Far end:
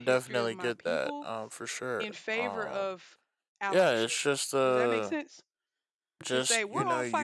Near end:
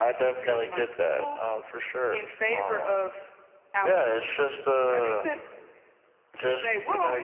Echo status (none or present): present